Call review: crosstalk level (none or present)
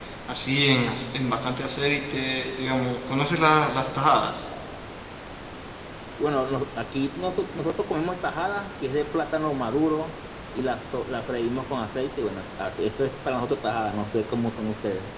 none